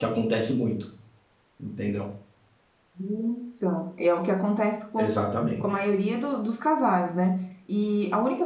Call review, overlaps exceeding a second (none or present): none